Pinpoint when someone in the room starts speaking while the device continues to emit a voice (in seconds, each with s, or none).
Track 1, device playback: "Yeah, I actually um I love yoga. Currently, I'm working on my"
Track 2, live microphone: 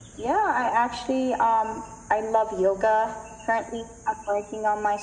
none